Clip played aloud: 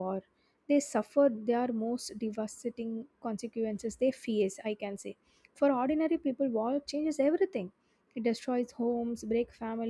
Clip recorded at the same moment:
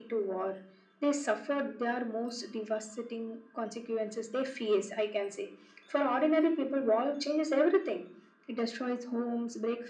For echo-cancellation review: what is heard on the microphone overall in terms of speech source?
echo only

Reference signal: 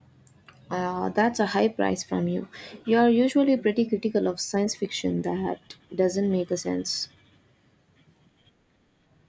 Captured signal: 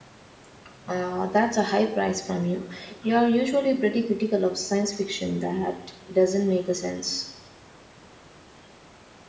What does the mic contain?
echo only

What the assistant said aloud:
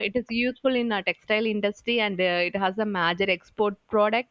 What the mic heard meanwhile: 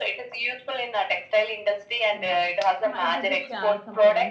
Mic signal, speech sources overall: both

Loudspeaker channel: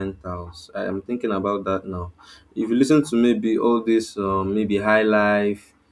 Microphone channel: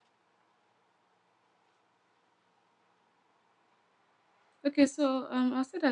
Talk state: user only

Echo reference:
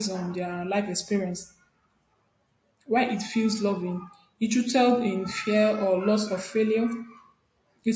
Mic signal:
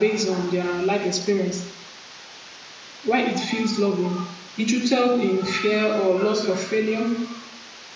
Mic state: echo only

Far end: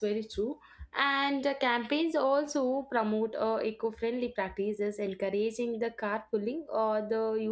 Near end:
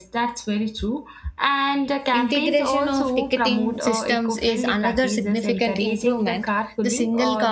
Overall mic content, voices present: both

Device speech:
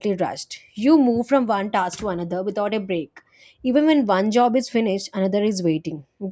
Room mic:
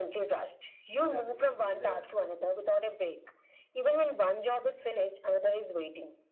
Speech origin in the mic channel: both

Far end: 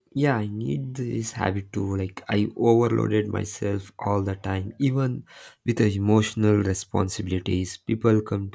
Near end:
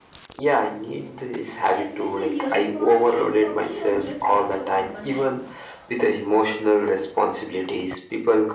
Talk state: both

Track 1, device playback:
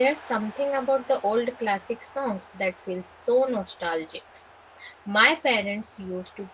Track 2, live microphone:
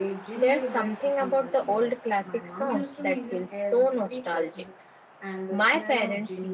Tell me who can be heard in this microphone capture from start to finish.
both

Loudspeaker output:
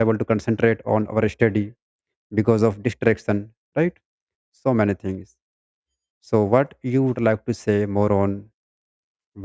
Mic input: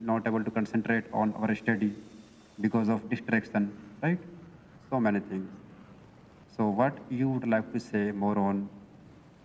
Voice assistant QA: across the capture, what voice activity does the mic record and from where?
echo only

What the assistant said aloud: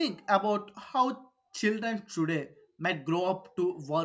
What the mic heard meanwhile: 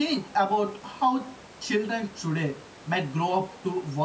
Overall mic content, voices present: echo only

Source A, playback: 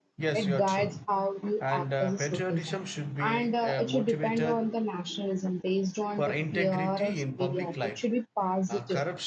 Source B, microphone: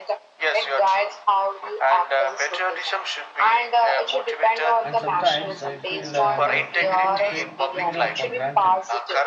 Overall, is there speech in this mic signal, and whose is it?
both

